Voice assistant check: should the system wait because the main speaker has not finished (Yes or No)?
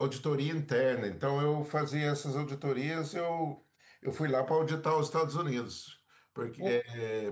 Yes